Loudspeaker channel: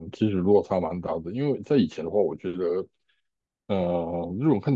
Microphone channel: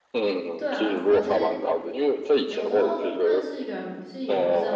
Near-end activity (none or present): present